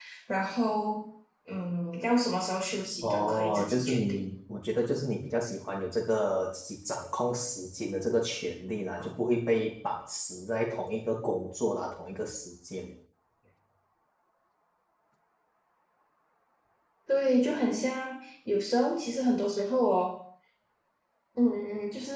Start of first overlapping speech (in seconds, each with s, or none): 3.0 s